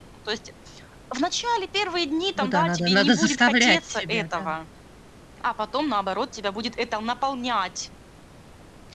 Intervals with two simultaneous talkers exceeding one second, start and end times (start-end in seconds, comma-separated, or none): 2.4-4.5